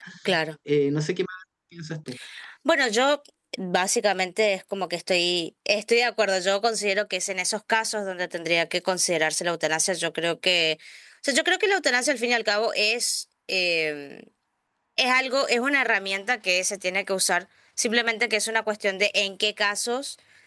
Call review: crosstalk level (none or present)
none